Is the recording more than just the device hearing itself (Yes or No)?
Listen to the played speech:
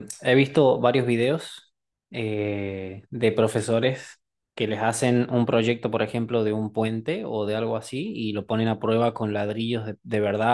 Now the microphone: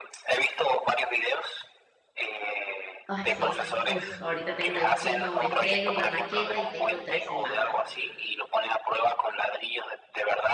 Yes